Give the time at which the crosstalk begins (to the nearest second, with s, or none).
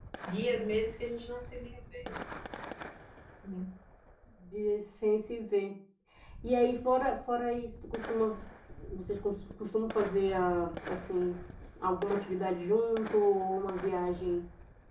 none